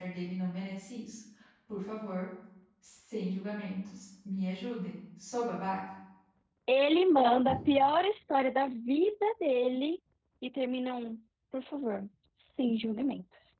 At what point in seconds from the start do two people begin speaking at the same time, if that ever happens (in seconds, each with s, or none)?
none